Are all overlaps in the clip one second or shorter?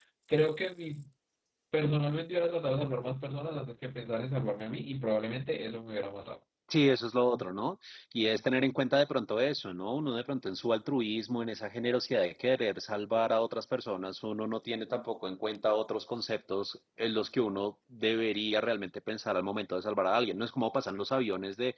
Yes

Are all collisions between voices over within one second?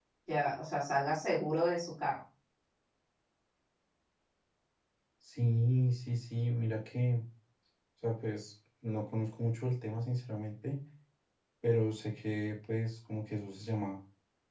Yes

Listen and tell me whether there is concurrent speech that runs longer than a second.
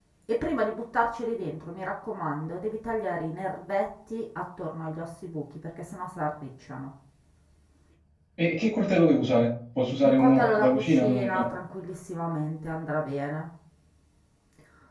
Yes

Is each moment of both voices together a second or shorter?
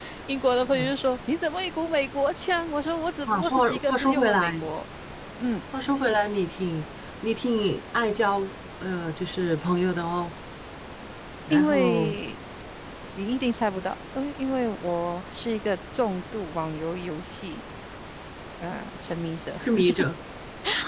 No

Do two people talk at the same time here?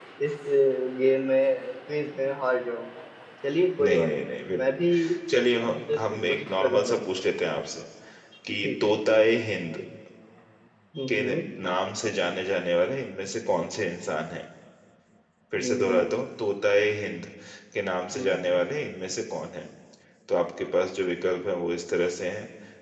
Yes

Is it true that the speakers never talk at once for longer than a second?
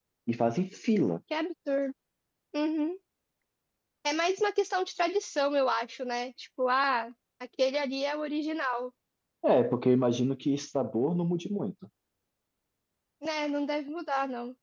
Yes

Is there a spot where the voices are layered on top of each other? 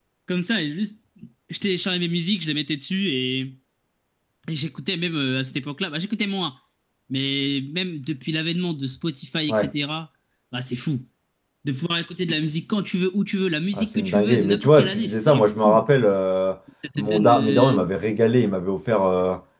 Yes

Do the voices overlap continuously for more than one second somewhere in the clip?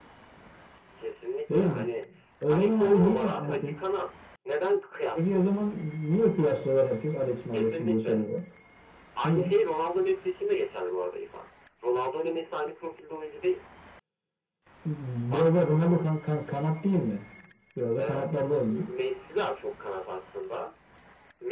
Yes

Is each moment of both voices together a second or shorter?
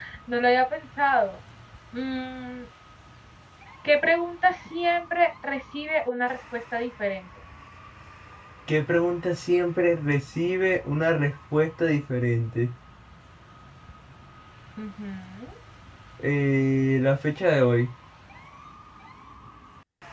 Yes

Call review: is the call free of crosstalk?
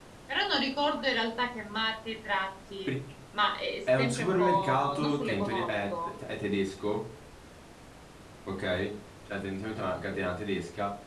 No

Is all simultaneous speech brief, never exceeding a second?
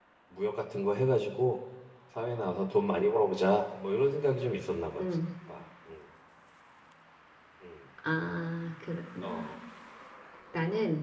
Yes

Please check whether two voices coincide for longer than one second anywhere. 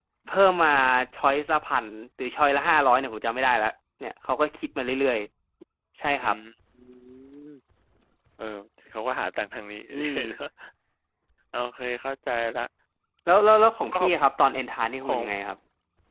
No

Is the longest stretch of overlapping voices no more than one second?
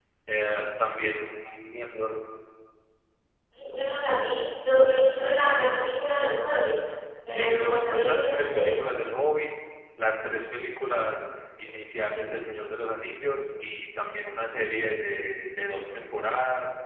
No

